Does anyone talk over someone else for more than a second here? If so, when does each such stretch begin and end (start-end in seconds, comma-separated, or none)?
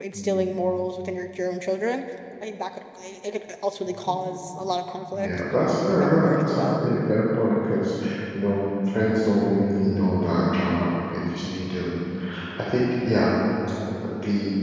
5.1-6.7